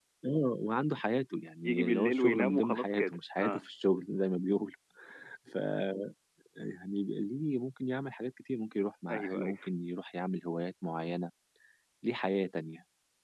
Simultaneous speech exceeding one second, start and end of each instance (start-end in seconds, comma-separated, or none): 1.6-3.7